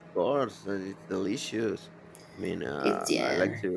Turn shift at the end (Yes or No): No